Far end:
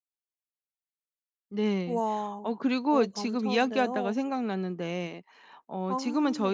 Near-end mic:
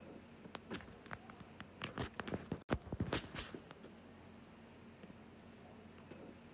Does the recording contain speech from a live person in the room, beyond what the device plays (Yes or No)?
No